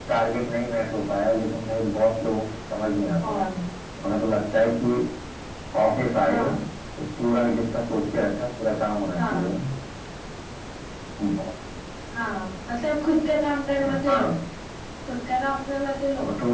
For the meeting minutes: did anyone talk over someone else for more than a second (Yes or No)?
No